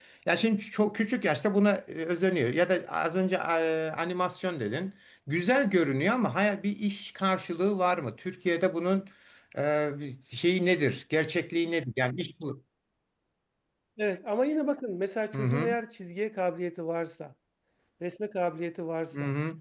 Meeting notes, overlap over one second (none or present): none